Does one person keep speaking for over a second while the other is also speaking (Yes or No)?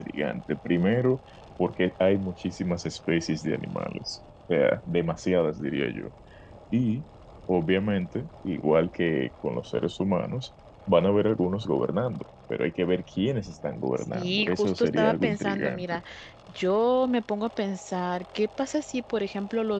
Yes